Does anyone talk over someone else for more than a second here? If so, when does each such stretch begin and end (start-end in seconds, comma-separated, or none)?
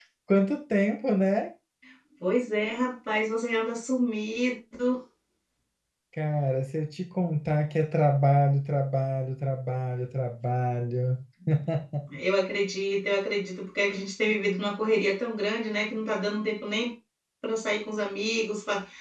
none